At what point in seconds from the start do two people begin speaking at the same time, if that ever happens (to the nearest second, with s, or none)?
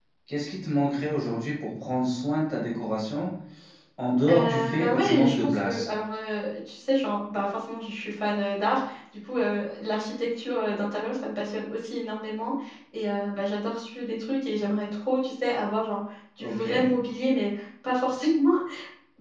4 s